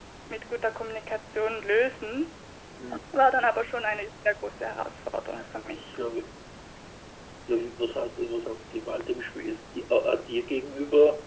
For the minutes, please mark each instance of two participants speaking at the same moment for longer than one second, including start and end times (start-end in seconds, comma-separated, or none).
none